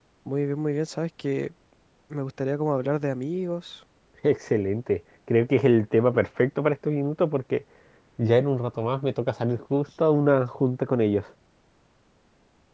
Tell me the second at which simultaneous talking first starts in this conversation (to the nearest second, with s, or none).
none